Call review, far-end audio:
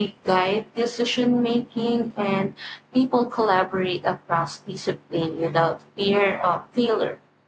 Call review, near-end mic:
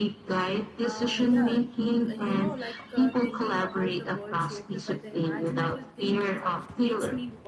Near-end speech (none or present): present